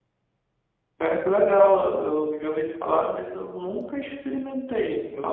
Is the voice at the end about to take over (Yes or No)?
Yes